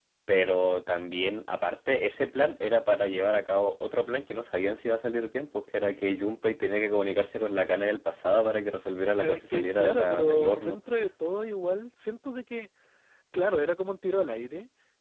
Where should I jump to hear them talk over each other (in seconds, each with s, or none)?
9.2 s